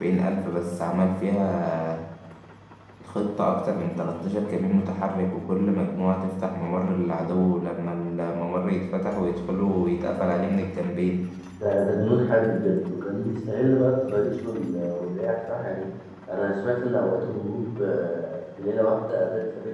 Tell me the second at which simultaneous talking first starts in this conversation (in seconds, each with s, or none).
none